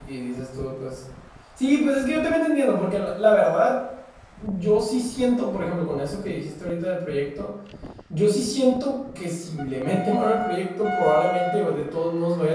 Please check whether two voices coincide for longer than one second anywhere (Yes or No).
No